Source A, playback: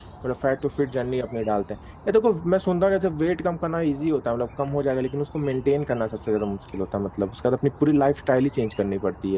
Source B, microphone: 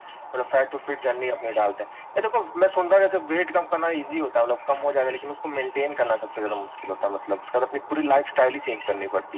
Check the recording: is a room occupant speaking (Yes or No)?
No